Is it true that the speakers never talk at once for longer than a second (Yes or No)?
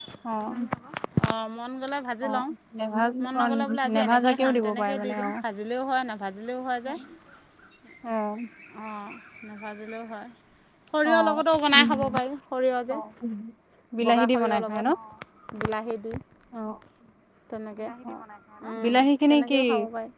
No